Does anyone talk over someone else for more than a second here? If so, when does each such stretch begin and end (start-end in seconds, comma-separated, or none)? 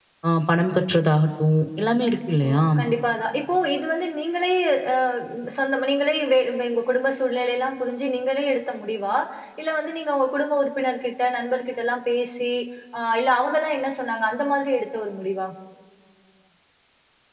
none